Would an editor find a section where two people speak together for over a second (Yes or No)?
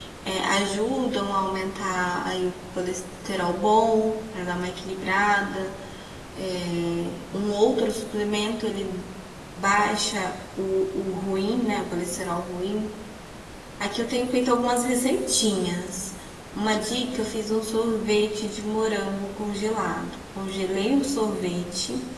No